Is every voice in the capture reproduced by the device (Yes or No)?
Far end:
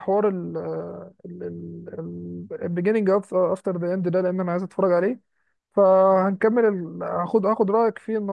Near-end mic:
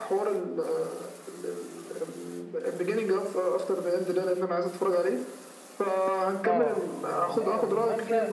No